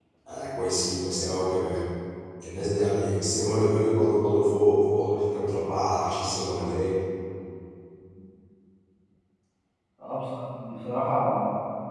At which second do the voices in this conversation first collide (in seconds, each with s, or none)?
none